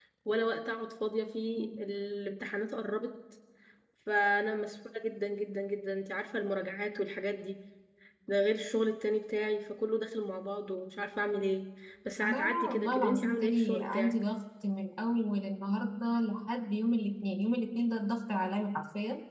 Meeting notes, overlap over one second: present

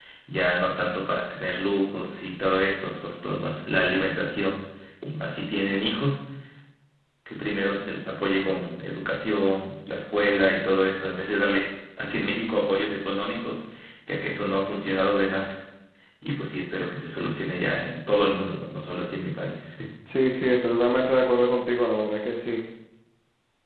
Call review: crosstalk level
none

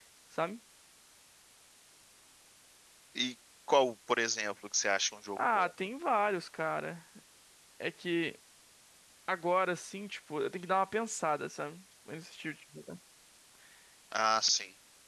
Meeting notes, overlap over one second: none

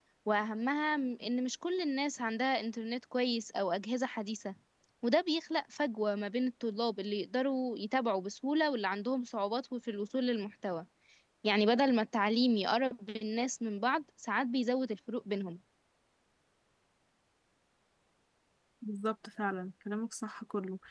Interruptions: none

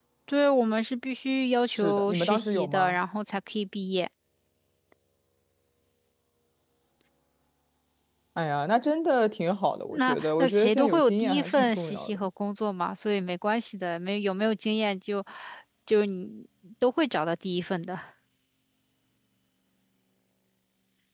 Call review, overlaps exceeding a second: present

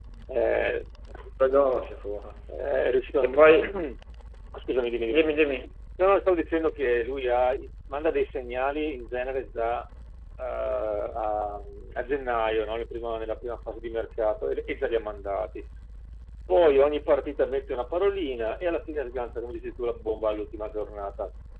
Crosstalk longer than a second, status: none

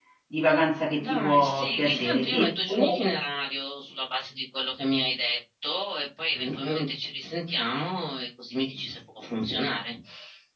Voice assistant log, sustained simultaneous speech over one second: present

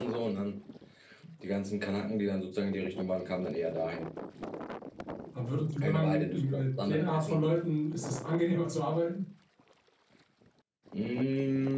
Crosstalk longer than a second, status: present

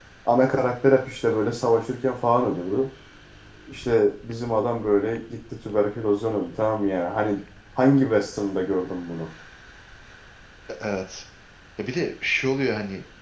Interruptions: none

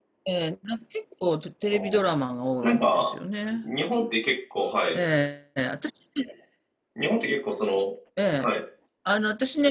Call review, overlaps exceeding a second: none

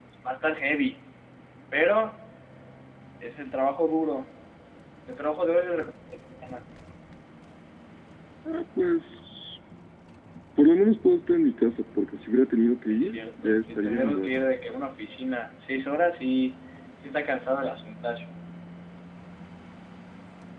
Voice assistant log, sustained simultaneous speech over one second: present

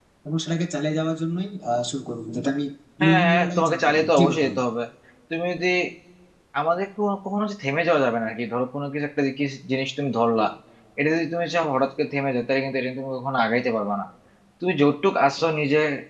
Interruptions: present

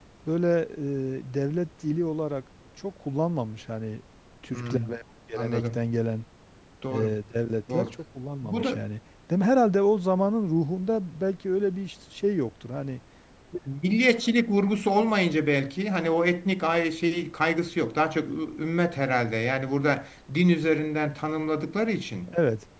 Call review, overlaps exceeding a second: none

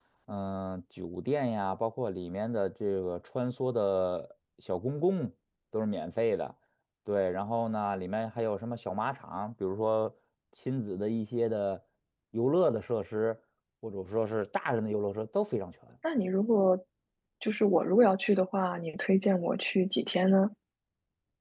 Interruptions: none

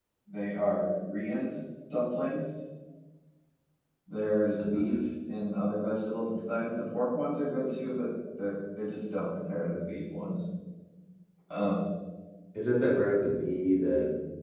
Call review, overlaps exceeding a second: none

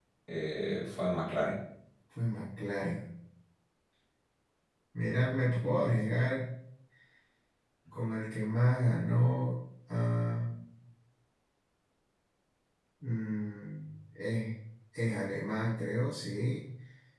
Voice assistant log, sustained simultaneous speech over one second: none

